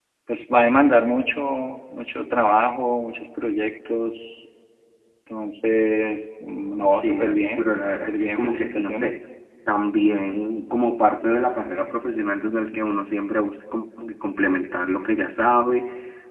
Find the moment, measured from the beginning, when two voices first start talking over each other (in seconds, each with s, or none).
7.0 s